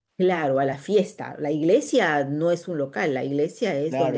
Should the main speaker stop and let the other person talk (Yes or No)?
Yes